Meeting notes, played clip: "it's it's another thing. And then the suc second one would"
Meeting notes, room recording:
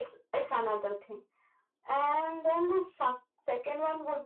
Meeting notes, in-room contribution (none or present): none